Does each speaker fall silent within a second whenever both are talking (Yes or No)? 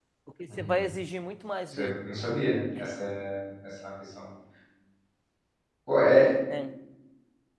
Yes